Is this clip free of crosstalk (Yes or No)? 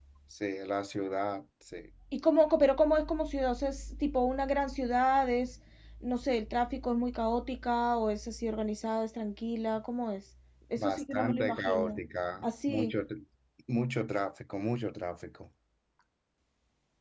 No